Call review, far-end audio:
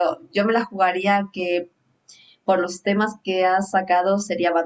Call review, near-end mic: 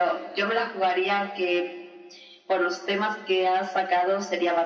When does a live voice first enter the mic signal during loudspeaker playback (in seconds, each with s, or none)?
none